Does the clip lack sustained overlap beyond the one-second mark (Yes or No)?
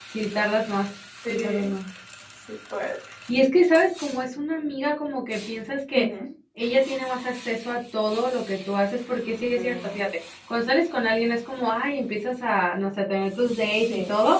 Yes